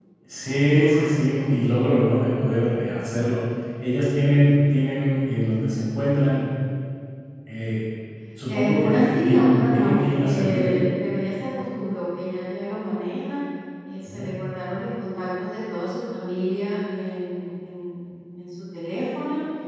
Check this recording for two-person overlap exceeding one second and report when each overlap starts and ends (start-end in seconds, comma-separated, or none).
8.5-10.8